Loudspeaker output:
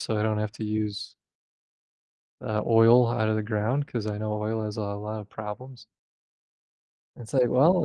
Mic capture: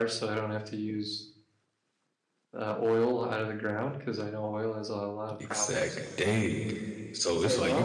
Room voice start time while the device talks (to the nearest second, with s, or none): 5 s